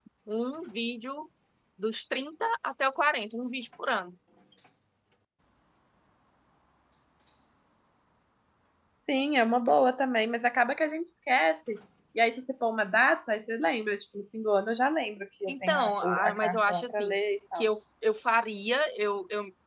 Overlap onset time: 15.5 s

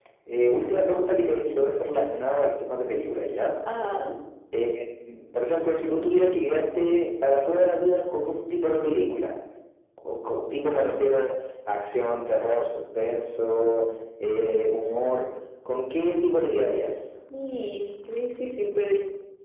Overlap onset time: none

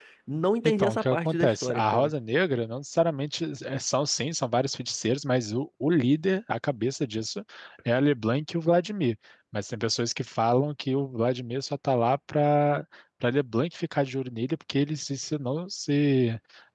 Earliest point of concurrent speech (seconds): 0.6 s

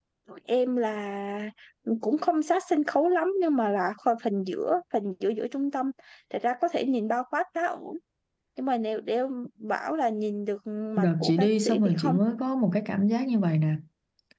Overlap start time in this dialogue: 11.0 s

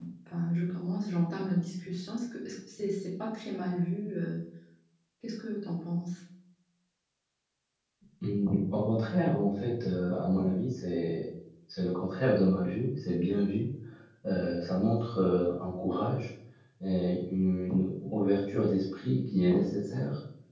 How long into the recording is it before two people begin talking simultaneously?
none

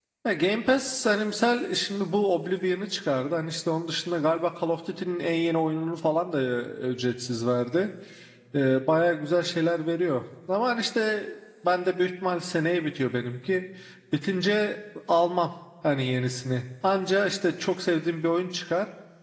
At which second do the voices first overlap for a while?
none

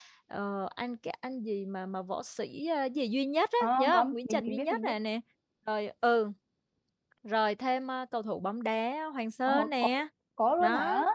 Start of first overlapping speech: 3.6 s

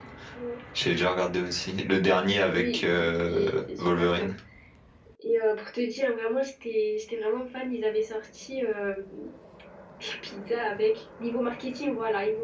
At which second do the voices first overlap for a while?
2.5 s

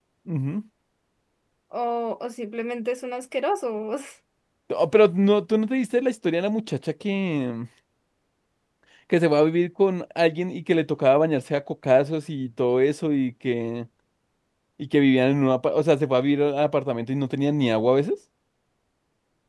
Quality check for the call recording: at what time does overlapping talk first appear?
none

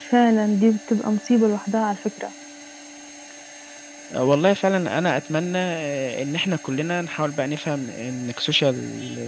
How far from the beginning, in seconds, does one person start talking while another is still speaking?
none

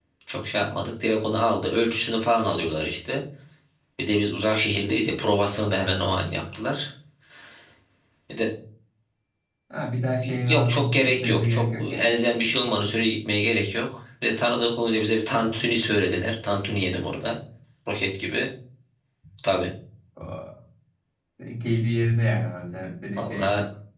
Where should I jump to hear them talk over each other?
10.5 s

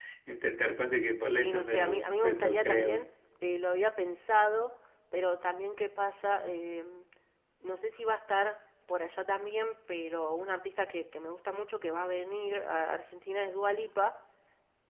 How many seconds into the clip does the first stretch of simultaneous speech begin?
1.3 s

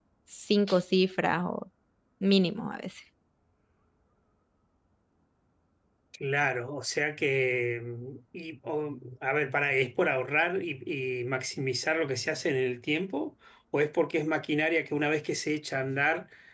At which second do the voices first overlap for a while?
none

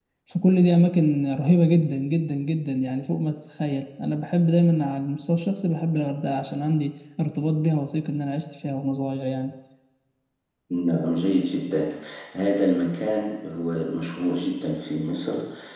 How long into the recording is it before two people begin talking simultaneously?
none

